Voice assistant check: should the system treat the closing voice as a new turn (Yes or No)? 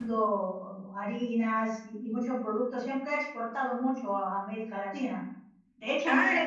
No